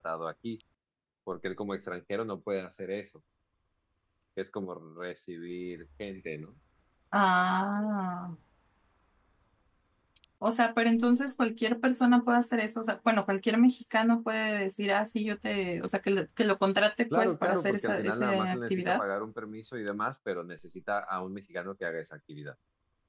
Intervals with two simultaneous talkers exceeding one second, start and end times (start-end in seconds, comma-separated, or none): 17.1-19.0